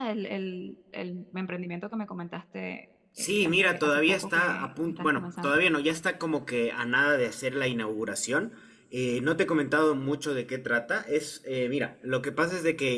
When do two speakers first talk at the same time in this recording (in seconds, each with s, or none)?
3.2 s